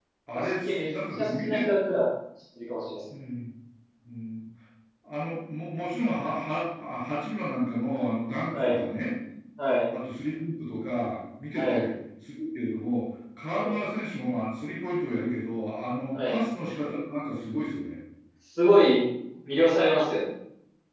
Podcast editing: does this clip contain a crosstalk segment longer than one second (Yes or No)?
Yes